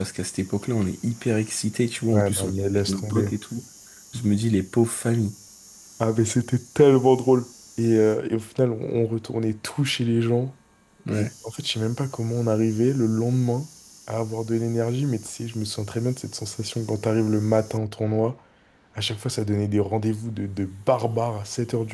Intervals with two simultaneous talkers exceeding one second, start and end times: 2.1-3.3

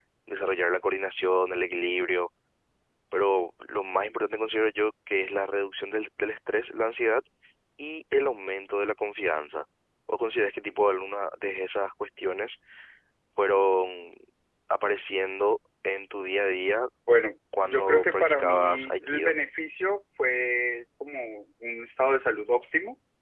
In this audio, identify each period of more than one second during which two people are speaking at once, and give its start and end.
17.6-19.3

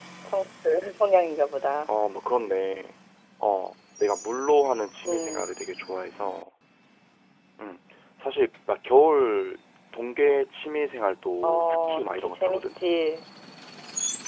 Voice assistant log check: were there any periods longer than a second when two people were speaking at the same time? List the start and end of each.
11.4-12.8

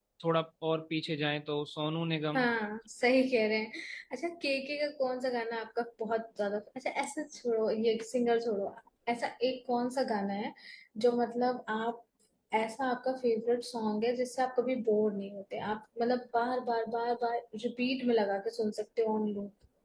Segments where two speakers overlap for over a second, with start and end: none

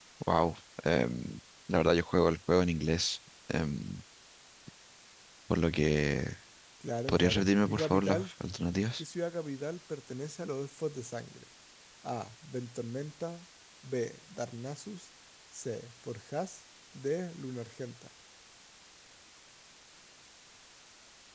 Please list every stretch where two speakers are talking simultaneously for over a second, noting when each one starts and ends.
7.1-8.3

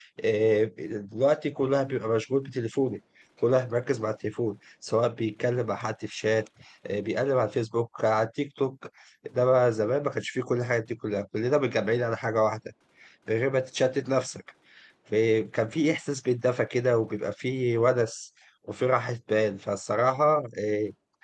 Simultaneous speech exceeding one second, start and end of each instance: none

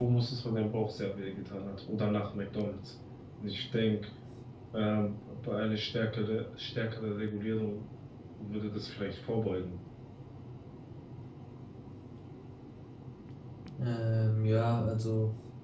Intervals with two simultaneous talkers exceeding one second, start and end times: none

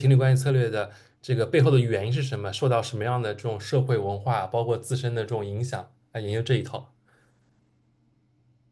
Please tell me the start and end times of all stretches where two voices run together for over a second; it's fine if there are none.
none

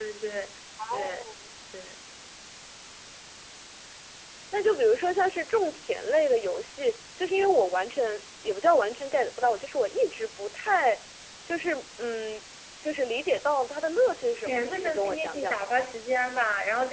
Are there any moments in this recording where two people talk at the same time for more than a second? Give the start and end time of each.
14.4-15.8

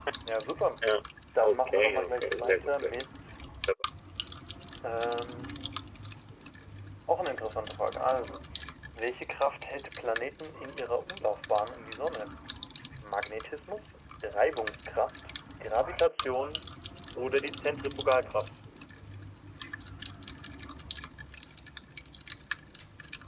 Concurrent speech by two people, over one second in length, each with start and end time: 1.4-3.0

